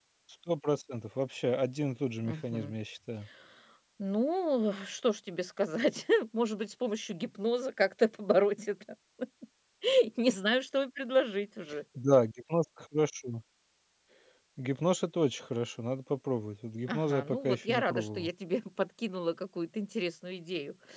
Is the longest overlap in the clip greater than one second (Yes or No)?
Yes